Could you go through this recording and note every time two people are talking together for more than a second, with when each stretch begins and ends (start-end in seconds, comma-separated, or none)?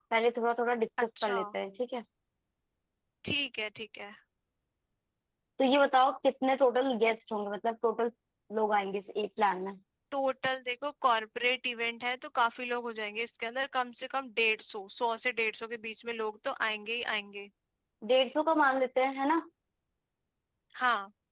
none